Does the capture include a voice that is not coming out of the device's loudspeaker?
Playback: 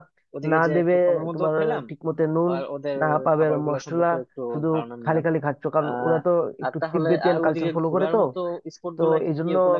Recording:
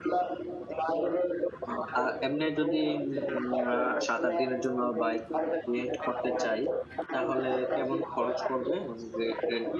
Yes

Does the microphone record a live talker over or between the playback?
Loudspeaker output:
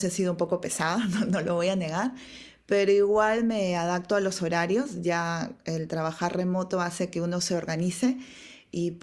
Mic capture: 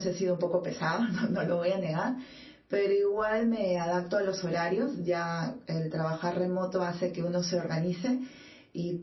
No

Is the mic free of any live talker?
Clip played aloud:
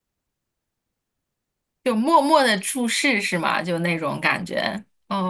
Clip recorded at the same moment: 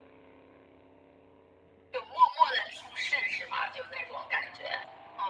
Yes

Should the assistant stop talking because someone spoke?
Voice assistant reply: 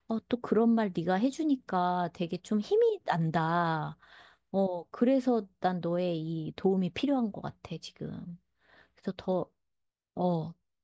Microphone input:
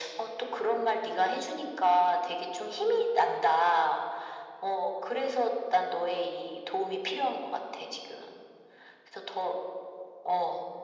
No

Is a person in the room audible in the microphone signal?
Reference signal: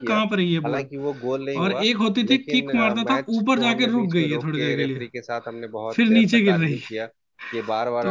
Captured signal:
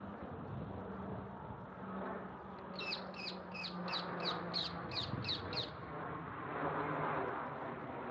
No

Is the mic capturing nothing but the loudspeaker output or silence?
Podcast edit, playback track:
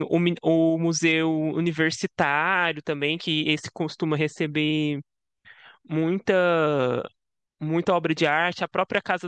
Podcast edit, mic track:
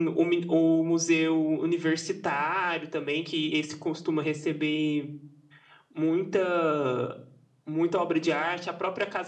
Yes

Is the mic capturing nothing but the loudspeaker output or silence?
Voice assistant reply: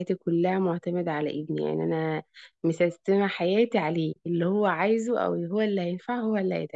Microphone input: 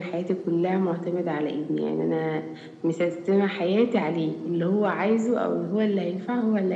Yes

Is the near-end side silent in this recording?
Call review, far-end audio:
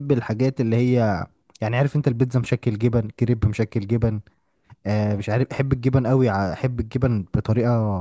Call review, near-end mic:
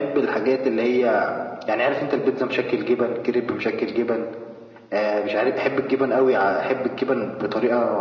Yes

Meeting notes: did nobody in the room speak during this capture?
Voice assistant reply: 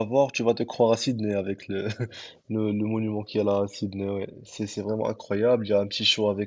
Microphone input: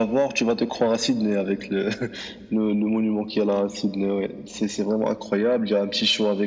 Yes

